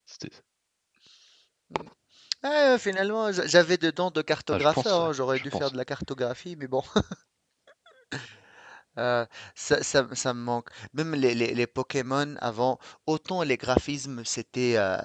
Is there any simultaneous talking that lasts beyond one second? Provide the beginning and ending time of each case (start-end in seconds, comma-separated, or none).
4.5-5.7